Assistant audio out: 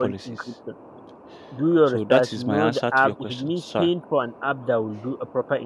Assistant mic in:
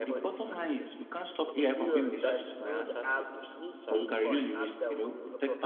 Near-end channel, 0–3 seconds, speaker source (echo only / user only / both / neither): both